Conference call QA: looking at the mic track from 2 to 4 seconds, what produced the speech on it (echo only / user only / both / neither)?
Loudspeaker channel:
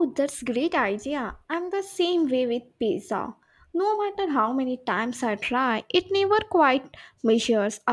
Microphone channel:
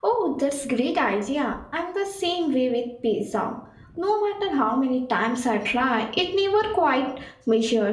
echo only